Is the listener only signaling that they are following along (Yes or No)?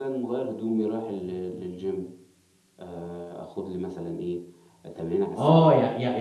No